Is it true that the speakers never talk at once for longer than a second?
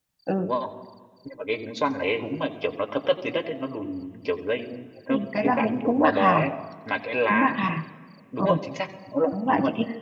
No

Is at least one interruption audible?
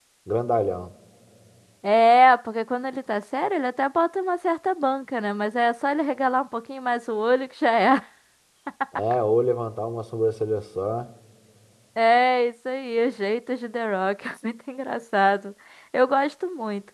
No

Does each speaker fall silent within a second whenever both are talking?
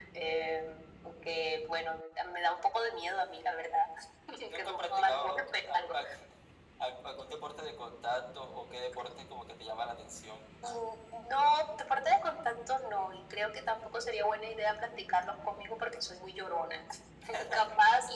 No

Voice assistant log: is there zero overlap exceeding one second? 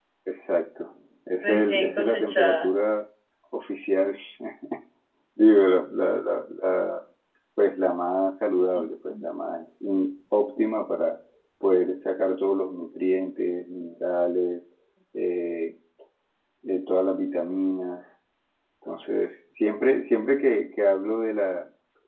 No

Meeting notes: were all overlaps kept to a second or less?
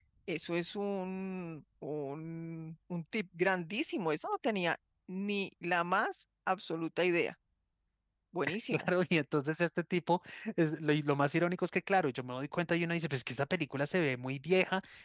Yes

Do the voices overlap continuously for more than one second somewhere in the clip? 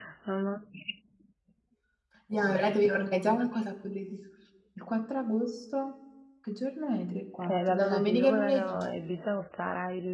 Yes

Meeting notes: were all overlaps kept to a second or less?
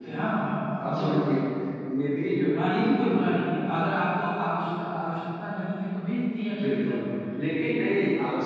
Yes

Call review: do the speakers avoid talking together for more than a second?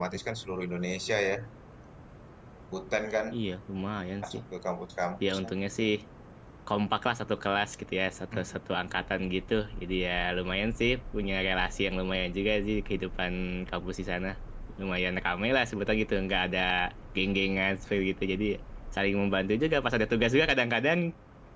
Yes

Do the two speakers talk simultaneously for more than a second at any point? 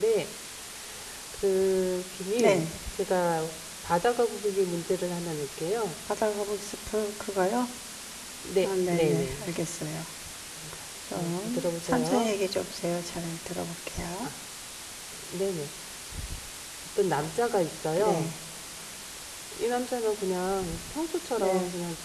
Yes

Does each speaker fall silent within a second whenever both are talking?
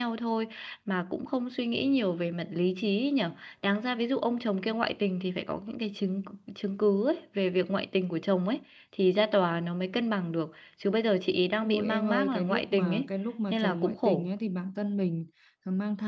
No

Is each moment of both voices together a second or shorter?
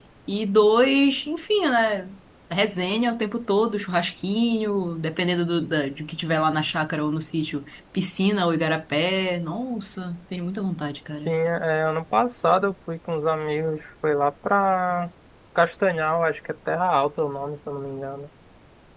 Yes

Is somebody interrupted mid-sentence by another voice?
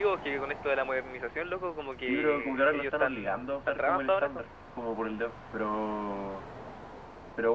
Yes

